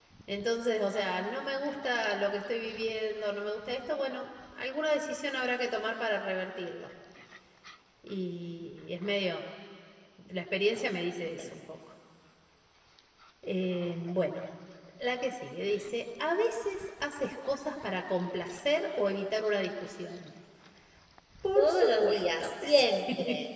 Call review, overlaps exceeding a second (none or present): present